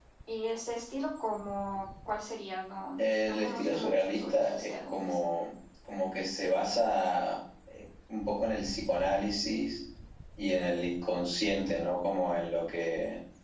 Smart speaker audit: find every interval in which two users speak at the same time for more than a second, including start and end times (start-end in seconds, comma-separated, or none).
3.0-5.2